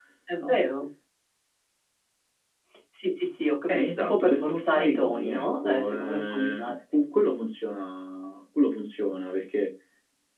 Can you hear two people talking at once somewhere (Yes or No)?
Yes